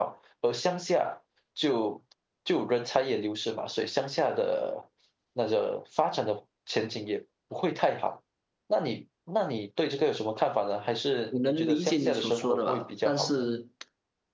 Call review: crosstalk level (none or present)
present